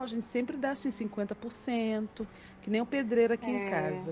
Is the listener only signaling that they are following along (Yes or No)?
Yes